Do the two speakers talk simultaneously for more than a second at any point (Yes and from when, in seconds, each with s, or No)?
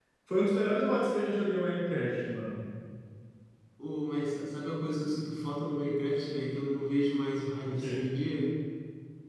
No